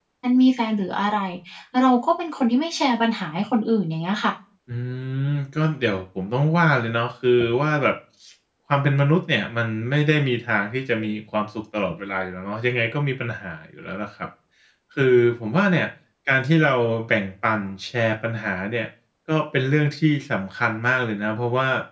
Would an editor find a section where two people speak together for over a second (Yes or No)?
No